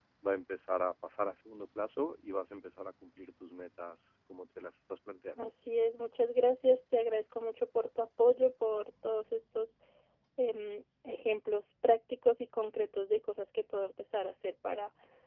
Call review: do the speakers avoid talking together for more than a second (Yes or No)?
Yes